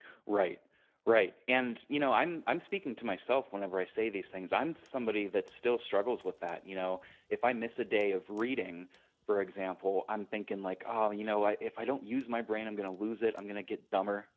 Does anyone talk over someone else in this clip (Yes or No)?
No